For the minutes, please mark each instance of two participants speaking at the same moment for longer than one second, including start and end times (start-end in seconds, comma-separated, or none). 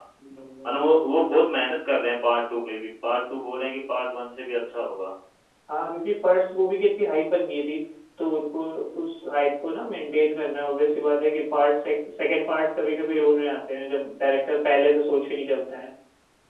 none